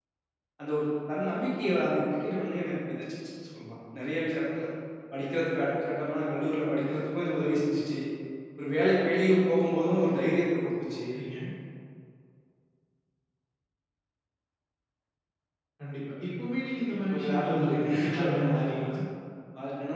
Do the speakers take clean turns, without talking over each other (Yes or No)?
No